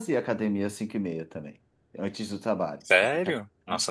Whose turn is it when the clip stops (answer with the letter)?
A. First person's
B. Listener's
B